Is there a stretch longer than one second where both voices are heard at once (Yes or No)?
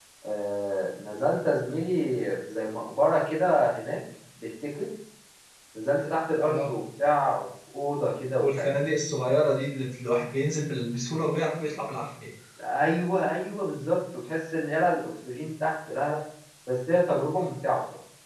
No